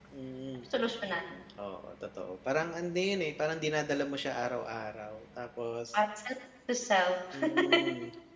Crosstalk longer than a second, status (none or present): none